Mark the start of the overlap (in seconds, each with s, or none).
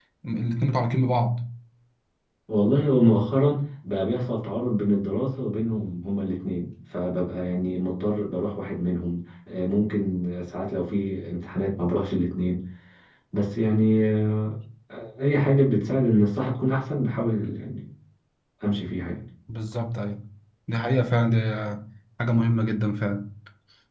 none